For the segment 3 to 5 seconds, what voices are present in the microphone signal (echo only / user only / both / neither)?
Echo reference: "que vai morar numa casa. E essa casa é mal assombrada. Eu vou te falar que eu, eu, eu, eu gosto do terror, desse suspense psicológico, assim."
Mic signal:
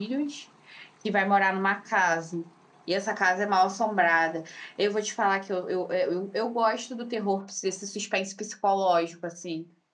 echo only